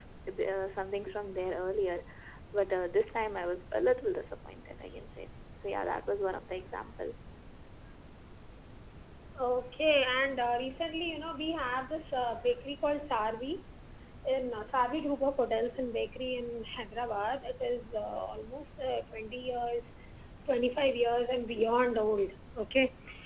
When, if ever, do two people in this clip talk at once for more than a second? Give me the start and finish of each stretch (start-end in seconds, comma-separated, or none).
none